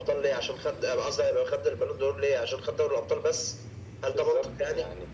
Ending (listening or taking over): taking over